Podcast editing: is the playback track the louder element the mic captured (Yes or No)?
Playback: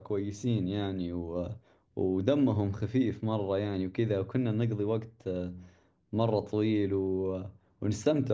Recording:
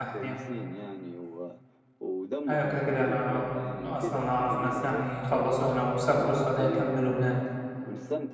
No